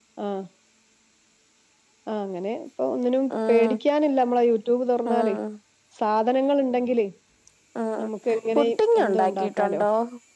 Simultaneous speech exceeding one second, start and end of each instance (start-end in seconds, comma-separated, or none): 8.6-9.8